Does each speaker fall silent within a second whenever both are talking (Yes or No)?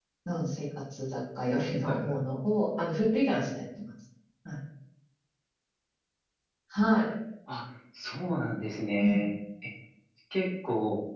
Yes